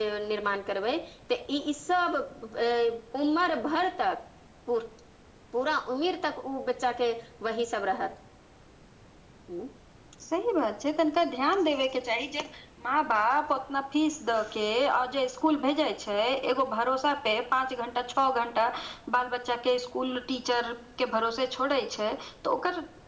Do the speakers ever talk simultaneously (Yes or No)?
No